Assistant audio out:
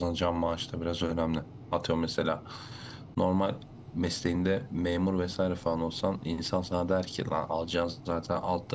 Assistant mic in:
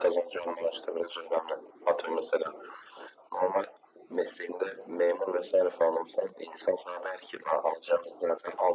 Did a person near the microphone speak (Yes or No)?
No